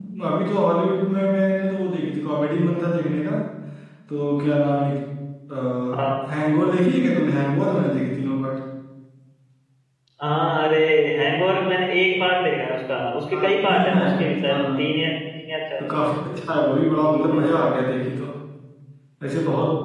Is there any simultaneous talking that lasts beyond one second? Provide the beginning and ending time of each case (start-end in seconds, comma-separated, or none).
13.3-14.8